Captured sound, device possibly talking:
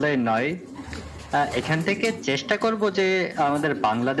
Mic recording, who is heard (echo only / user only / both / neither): echo only